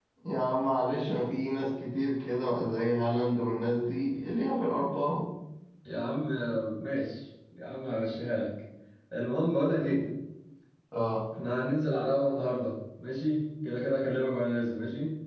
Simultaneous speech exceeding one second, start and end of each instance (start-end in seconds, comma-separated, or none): none